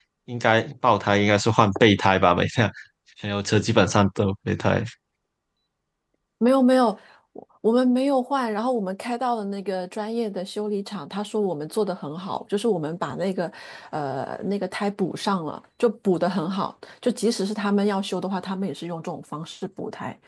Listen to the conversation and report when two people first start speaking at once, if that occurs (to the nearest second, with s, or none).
none